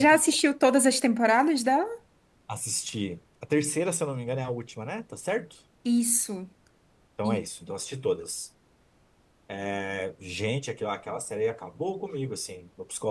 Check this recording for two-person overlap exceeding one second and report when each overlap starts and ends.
none

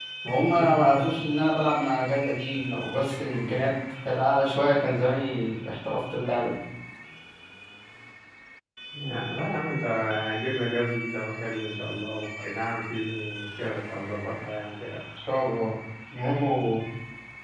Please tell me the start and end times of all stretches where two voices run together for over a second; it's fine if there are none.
none

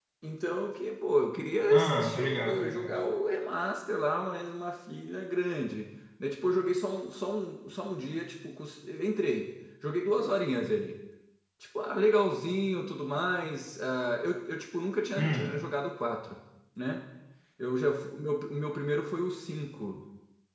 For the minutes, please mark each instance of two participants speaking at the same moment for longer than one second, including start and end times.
1.7-3.0

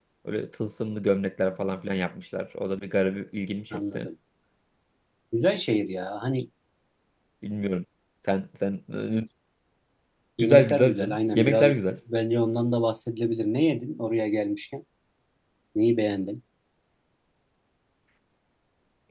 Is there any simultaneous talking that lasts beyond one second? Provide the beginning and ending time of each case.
10.4-11.7

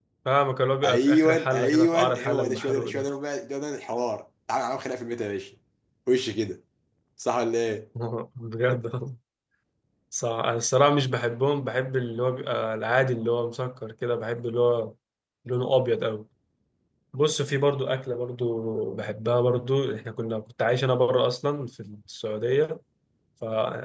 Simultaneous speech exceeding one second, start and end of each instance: 0.8-3.1

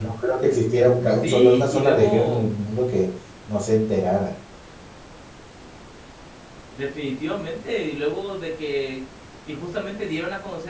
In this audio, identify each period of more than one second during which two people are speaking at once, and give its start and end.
1.2-2.5

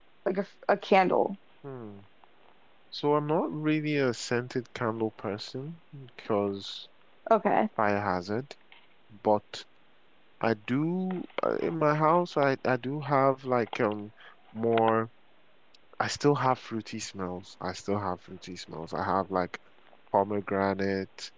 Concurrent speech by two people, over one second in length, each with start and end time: none

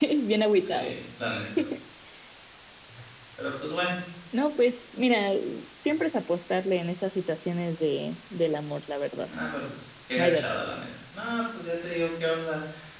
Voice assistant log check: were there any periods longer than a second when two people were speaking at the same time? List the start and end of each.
none

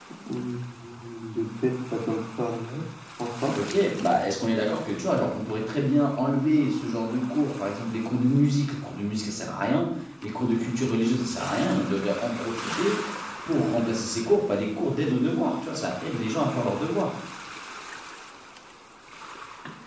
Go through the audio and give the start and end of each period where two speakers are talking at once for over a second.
none

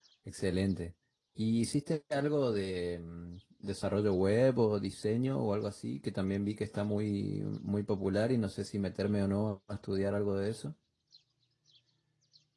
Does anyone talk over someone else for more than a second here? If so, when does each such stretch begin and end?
none

